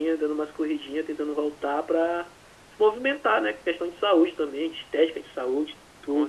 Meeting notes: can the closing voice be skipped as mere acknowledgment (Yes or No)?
No